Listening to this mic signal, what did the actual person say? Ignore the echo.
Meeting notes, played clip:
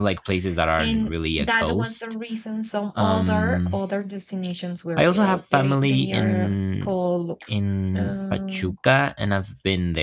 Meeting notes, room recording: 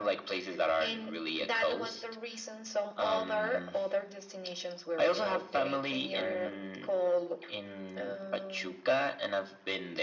none

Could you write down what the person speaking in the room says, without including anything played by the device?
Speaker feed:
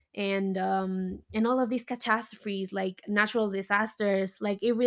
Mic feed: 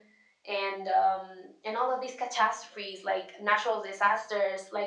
none

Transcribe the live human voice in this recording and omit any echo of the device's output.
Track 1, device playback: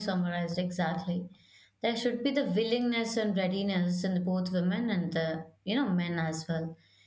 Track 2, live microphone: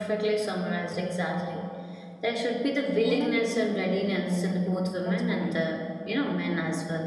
women need to be independent bro that's what i think

